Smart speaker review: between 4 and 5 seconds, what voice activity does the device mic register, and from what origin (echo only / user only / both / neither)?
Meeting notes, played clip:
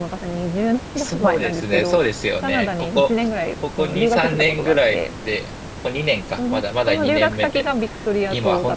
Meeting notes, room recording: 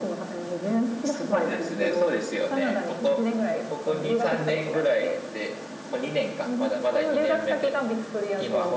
echo only